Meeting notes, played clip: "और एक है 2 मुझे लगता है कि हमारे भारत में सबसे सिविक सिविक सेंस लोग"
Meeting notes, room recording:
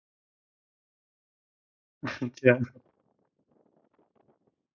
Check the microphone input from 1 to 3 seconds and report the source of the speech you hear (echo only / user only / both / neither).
user only